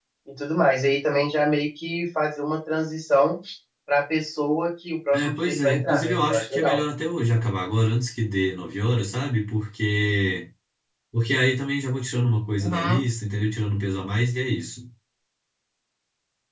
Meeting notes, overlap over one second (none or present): present